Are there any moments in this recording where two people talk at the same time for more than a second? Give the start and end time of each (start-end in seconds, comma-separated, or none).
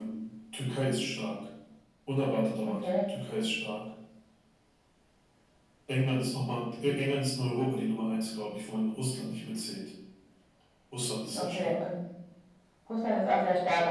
none